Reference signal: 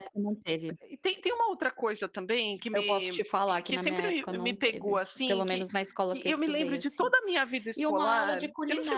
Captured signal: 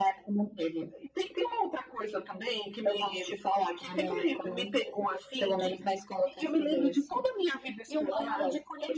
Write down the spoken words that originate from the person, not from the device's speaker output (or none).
none